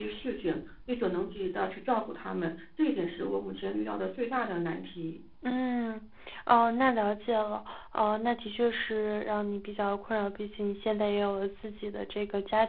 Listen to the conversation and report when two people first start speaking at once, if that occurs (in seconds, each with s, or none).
none